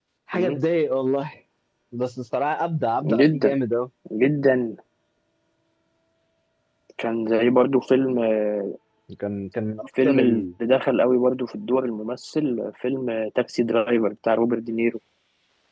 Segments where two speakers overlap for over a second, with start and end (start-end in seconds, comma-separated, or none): none